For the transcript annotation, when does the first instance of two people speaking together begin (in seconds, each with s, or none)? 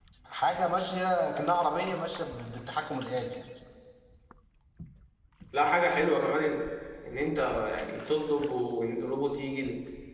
none